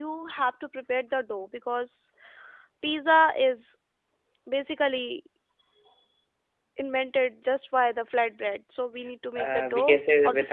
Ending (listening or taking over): taking over